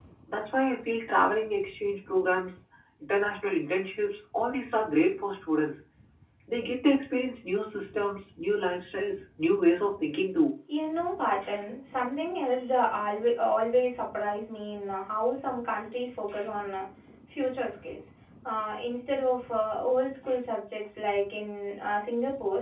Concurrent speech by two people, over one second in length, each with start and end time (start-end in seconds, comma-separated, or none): none